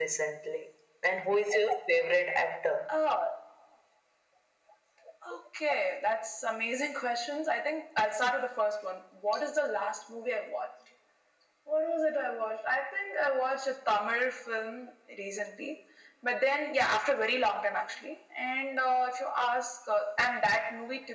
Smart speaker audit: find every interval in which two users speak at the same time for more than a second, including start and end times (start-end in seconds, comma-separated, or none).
none